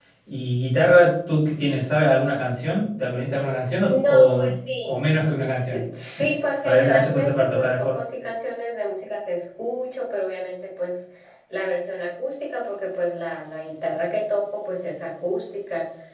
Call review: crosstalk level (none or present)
present